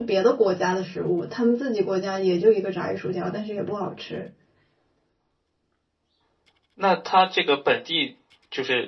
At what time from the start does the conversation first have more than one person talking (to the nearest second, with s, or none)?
none